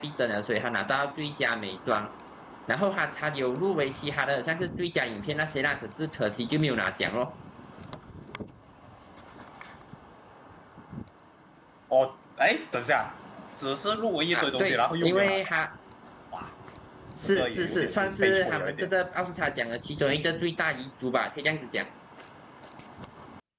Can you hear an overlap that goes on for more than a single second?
Yes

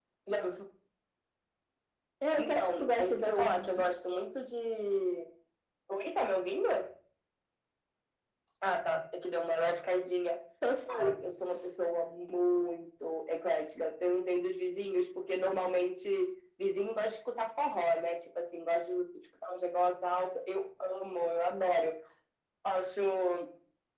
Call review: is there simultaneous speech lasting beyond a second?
Yes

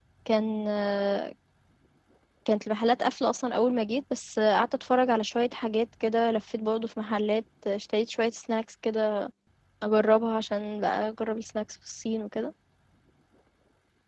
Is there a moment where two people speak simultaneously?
No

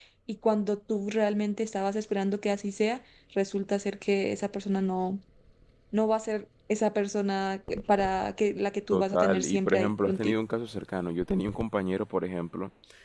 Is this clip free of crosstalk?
No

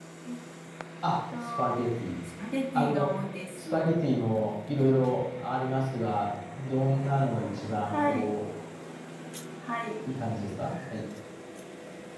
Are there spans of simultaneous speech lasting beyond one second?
No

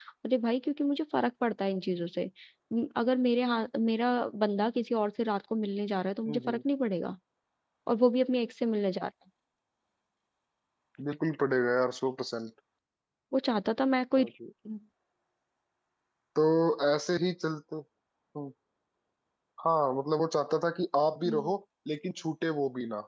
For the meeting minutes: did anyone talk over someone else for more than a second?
No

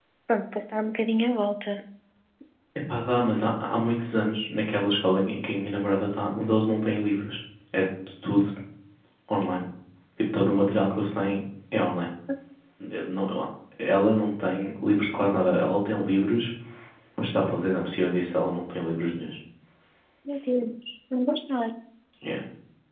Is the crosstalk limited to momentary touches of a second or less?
Yes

